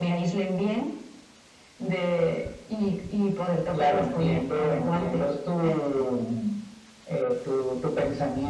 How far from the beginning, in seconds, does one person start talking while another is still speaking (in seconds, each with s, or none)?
3.7 s